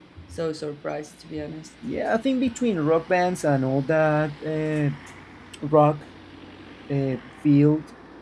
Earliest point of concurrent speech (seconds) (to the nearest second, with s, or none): none